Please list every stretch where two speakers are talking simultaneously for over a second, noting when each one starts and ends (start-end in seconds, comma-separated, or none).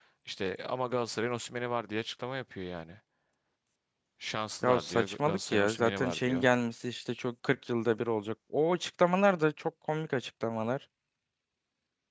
4.6-6.5